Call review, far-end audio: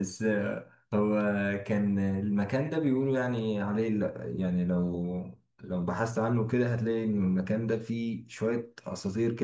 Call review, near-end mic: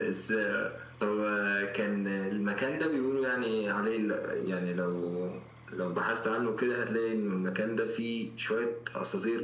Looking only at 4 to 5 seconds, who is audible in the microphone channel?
echo only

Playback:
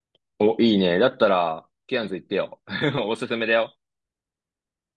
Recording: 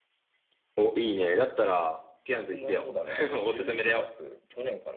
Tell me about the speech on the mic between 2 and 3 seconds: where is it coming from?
both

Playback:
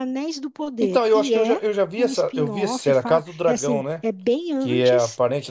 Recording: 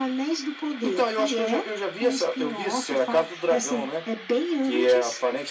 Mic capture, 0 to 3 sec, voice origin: echo only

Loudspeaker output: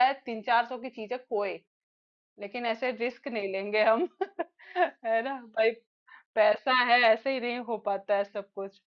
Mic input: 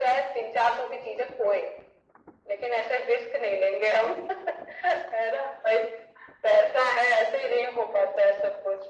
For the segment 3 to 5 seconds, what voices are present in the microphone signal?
echo only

